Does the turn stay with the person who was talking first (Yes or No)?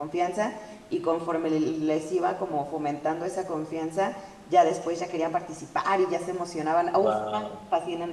Yes